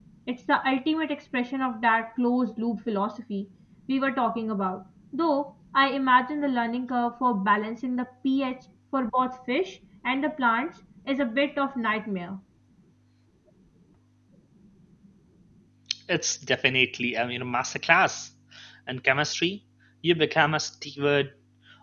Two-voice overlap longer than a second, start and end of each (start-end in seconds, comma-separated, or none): none